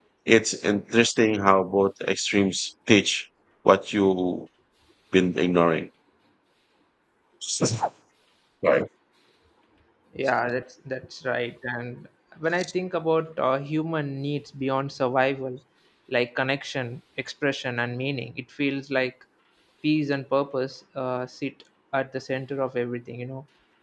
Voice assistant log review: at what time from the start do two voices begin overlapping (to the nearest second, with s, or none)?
none